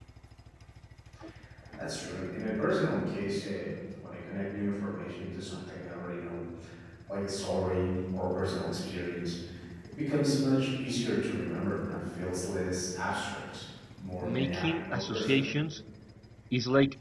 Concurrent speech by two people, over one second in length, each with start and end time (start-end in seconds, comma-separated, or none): 14.2-15.5